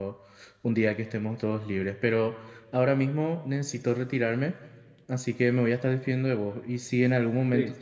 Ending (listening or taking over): listening